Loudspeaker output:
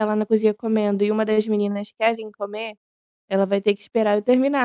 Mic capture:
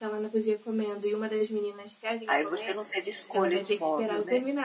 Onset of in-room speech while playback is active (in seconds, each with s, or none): 2.3 s